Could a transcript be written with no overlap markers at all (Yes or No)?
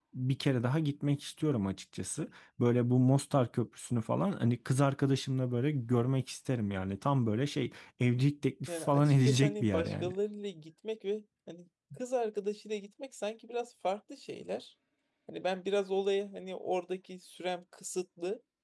No